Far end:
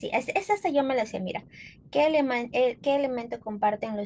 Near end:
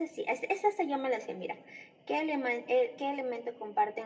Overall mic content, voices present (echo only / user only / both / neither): echo only